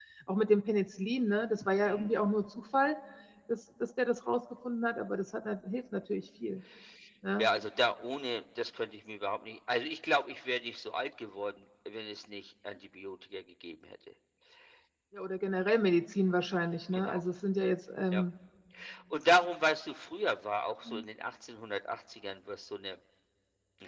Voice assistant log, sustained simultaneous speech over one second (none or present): none